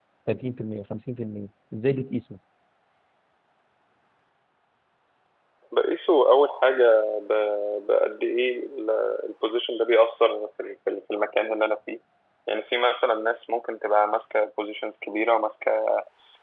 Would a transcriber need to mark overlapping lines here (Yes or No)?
No